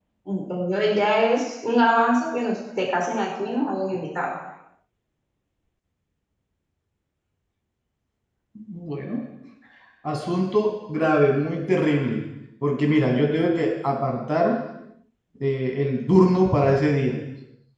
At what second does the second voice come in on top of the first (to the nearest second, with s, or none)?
none